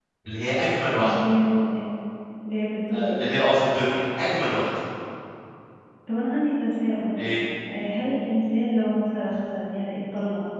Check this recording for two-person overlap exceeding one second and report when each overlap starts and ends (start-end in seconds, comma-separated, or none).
none